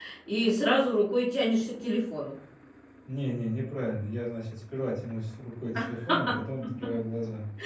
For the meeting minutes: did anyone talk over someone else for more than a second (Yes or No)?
No